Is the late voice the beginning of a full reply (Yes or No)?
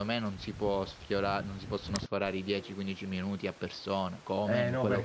Yes